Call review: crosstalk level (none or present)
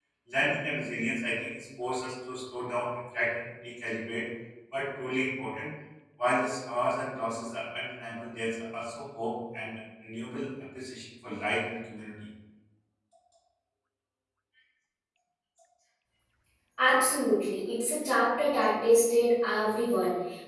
none